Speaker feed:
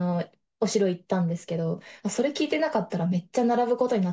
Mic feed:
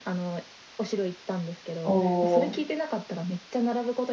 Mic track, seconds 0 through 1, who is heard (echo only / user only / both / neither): echo only